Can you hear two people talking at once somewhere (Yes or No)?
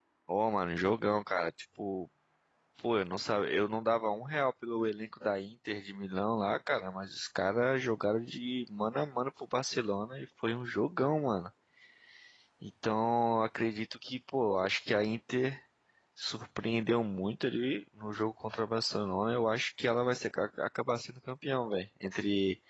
No